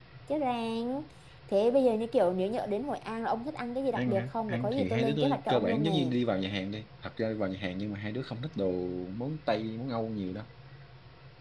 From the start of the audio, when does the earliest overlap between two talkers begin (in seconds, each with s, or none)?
4.0 s